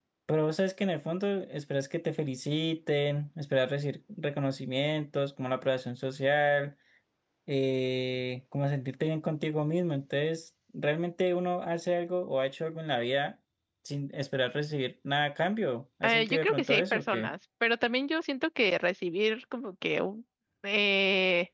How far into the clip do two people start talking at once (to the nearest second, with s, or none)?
16 s